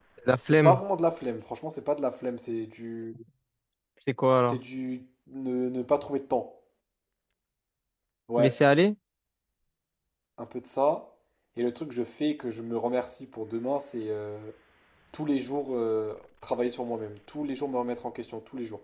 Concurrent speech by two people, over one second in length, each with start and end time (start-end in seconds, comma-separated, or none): none